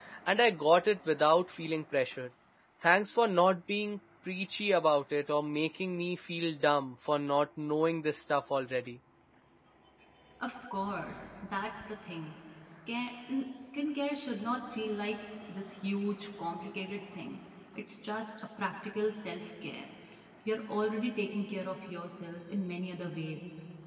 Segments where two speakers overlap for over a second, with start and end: none

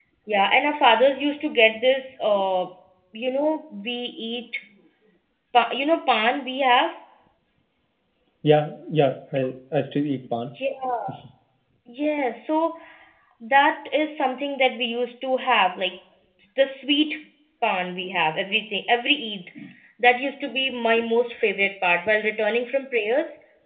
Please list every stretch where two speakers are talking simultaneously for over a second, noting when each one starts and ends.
none

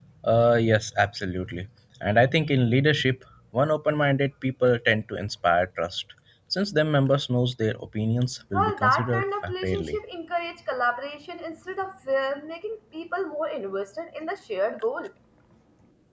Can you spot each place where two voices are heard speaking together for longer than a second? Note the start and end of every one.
8.5-10.0

